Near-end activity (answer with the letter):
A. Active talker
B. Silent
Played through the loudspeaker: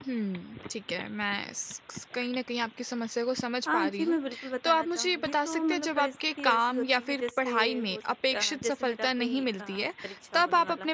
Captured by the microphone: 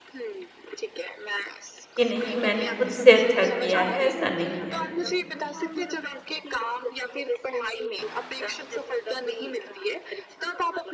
A